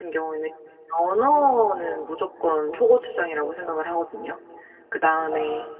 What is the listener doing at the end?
listening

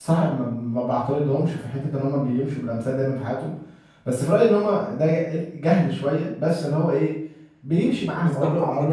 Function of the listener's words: taking over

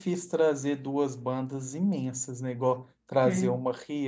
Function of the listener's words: listening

